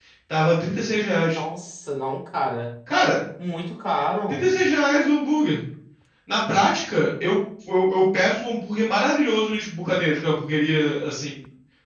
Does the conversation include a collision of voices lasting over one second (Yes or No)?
No